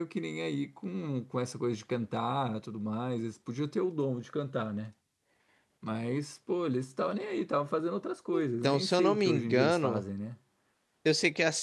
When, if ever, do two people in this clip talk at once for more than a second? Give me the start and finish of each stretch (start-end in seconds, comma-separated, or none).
8.6-10.0